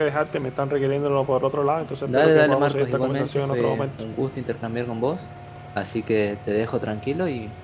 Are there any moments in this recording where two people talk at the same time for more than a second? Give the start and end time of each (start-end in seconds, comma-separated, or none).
2.1-4.0